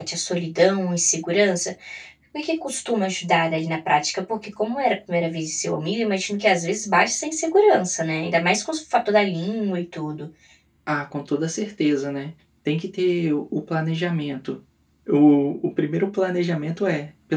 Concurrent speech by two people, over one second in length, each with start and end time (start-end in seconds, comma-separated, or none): none